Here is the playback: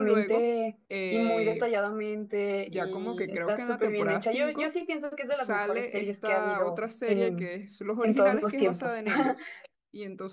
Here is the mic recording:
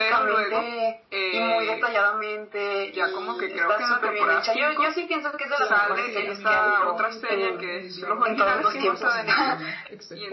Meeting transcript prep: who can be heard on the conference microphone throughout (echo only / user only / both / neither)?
both